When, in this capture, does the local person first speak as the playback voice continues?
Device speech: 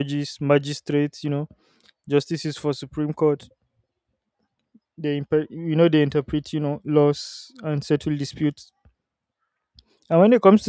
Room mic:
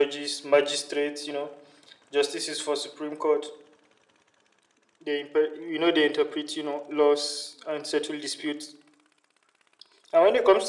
none

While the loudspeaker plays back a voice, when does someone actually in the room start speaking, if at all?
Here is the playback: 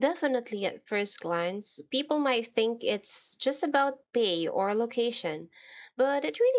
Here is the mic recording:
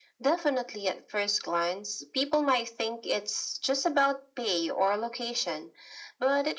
none

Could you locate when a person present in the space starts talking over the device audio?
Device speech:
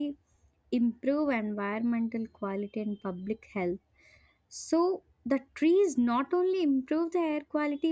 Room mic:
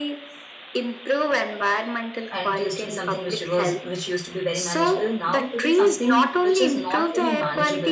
2.3 s

